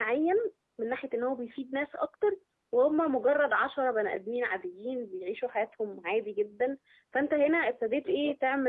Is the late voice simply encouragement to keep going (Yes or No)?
Yes